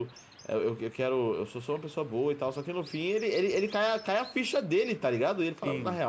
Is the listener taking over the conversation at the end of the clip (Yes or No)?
No